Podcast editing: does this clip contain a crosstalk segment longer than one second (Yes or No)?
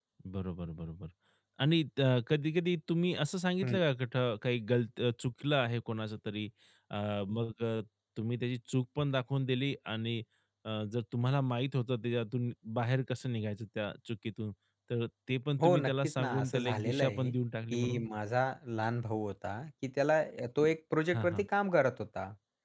Yes